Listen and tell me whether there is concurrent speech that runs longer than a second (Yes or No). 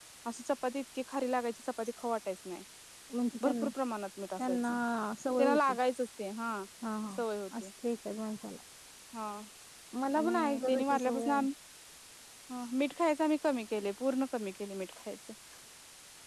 Yes